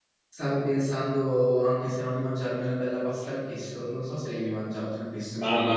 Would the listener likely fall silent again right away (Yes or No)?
No